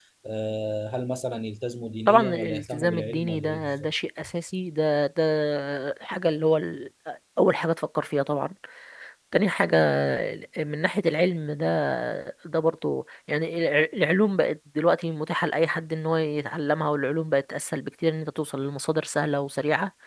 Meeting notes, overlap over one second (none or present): present